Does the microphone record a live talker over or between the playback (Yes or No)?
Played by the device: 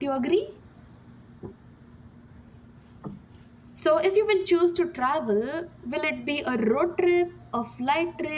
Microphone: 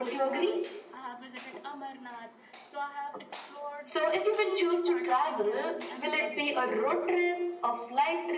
Yes